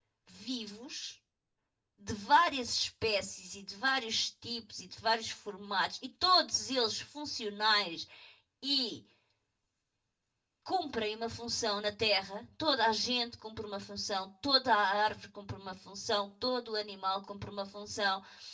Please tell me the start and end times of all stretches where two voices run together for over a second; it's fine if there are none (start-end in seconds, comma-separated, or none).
none